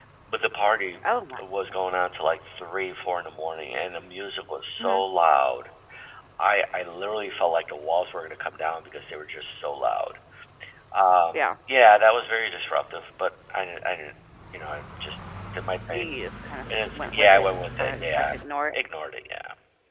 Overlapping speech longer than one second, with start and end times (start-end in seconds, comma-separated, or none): 16.9-18.3